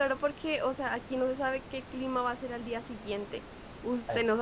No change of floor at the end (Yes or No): Yes